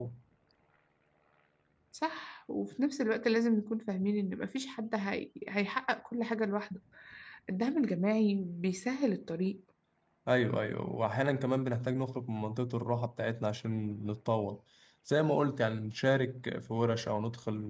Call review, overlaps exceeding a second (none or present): none